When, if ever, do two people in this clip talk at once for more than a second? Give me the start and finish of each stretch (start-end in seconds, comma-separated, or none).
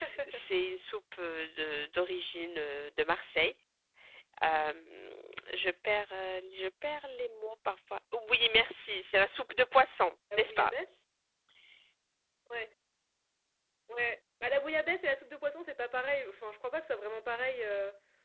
none